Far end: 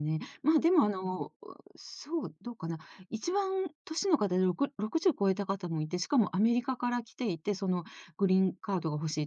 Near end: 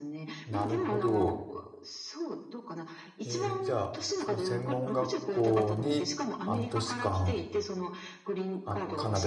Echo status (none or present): present